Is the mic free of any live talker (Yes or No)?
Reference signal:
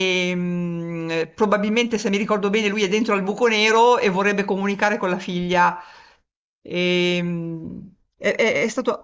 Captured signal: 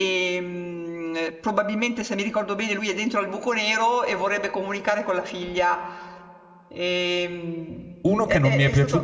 No